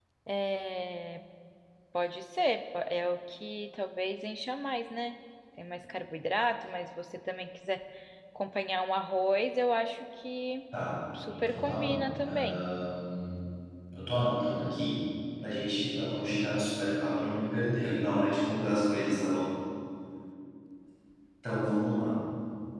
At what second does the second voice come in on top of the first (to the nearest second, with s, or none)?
11 s